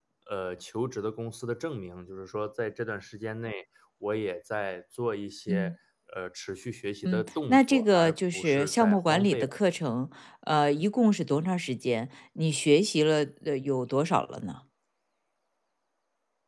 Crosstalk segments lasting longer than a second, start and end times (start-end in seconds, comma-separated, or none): 7.0-9.4